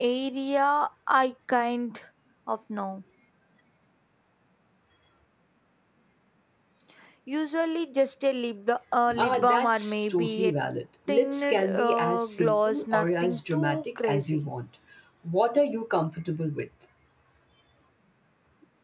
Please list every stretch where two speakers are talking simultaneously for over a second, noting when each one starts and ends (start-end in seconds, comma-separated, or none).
9.2-10.5, 11.1-14.5